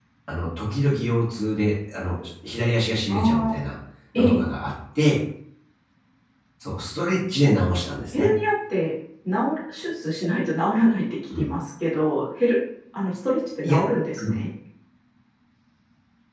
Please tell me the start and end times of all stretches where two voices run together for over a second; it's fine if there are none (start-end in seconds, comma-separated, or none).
none